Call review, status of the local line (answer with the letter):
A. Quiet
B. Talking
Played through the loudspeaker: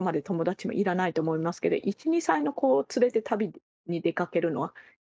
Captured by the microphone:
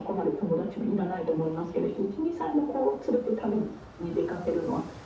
A